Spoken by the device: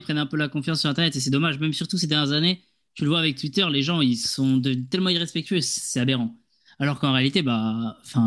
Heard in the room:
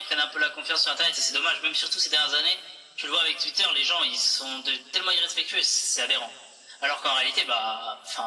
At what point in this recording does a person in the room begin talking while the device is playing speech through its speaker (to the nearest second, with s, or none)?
none